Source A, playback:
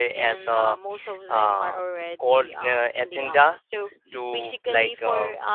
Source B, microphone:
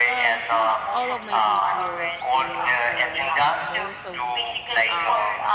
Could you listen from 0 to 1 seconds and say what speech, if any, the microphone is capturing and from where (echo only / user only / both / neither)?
both